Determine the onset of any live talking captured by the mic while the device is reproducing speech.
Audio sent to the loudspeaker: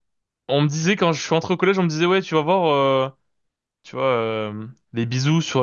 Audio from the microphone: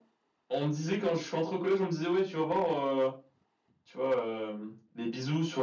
none

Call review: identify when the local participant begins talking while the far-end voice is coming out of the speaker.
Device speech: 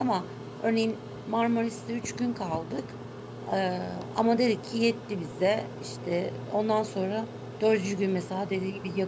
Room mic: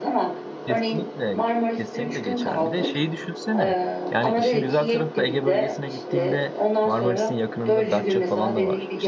1 s

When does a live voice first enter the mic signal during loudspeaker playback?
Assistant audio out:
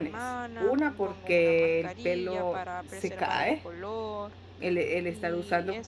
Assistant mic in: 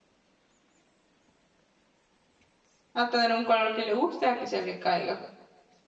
3 s

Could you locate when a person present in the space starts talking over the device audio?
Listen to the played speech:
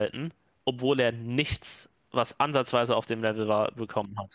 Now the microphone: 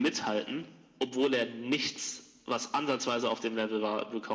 none

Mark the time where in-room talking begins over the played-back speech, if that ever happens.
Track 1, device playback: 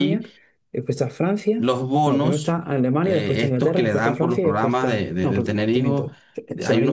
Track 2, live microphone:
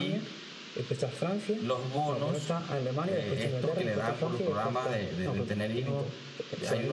none

